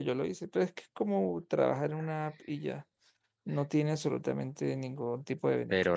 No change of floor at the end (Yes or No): No